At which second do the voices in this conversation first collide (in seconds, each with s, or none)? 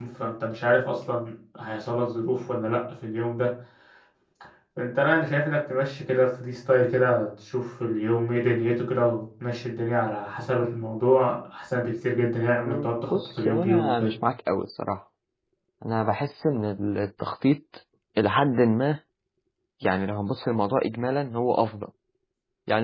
12.7 s